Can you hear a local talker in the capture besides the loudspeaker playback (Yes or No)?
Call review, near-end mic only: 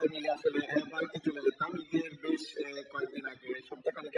No